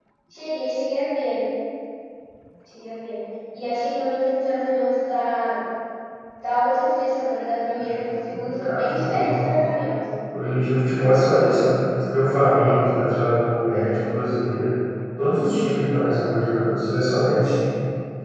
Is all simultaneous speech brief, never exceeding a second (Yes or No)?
No